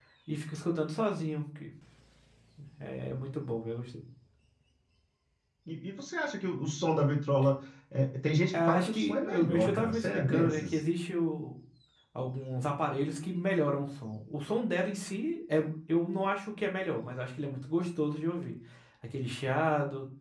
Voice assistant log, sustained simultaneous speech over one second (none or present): present